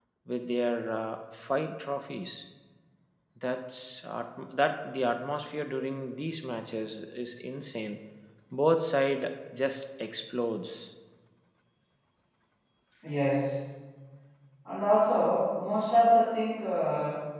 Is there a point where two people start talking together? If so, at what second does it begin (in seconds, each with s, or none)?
none